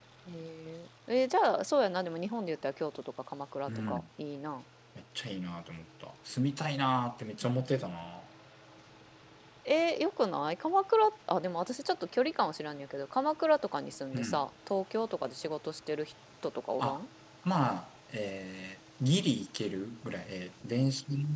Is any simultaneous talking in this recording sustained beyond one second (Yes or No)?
No